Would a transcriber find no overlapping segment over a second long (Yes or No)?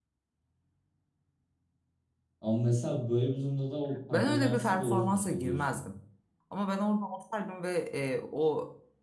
No